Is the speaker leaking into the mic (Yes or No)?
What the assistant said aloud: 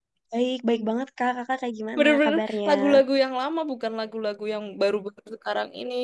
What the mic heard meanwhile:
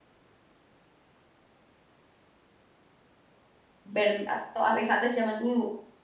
No